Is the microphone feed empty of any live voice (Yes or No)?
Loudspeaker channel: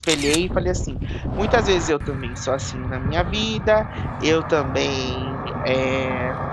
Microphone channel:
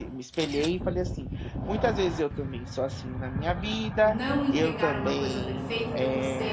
No